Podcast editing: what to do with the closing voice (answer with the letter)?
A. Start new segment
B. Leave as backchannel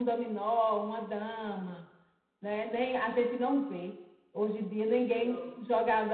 B